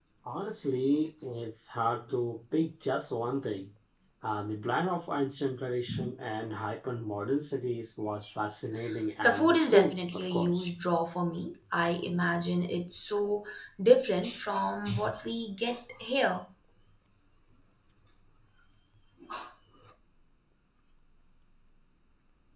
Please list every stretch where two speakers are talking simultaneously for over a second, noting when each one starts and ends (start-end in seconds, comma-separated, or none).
9.2-10.7